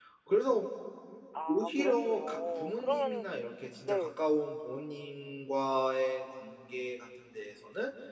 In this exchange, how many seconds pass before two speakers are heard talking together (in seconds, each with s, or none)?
1.5 s